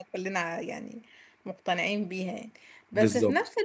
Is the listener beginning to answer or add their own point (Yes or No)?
No